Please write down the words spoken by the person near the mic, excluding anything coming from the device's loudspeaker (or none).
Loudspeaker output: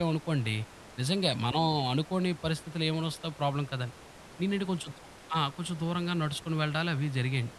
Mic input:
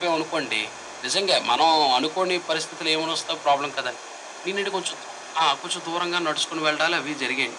none